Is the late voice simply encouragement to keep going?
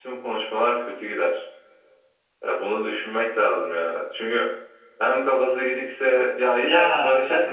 Yes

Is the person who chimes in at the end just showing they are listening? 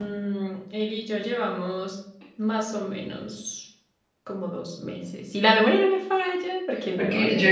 No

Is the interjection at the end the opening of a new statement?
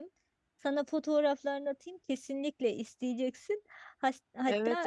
Yes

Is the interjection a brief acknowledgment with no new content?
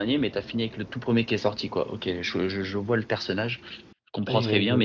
Yes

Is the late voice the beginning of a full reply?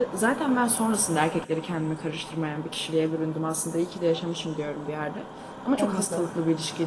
No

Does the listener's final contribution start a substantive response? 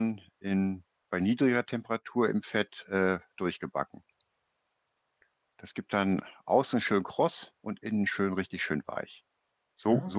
Yes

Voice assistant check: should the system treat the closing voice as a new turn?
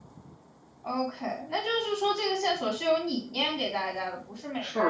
Yes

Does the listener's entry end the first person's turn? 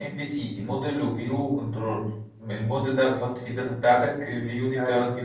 No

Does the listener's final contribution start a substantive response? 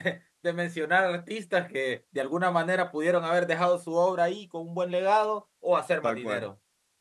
No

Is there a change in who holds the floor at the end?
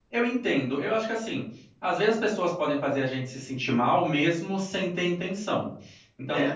No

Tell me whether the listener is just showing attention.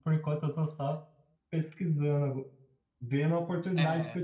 Yes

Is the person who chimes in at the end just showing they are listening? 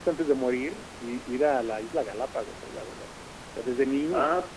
Yes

